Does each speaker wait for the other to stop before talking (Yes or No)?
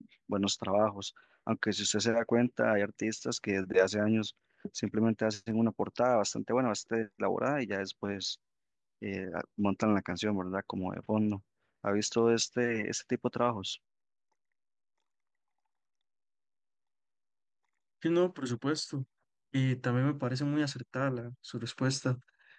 Yes